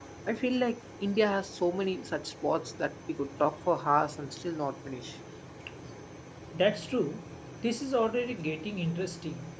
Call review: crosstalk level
none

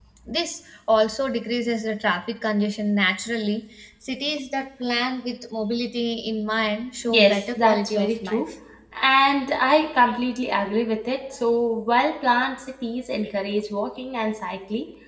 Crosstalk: present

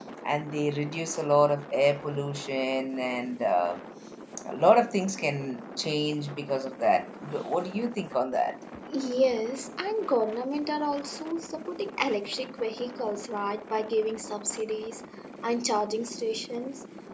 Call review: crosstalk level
none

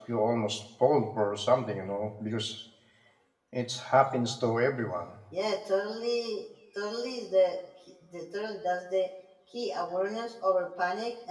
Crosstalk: none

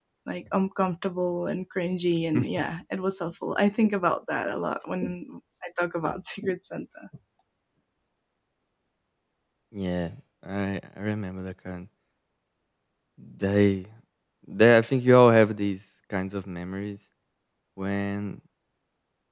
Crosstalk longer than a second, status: none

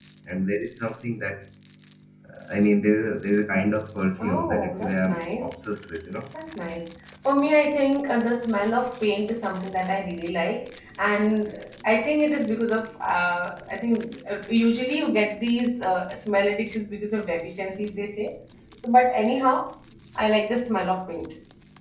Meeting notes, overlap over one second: present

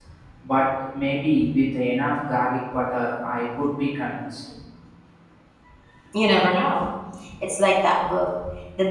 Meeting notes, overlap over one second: none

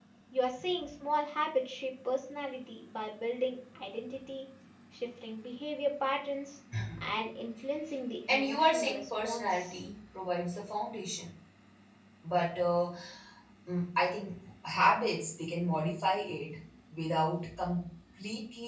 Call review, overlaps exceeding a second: present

